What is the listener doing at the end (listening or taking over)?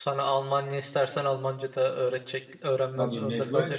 taking over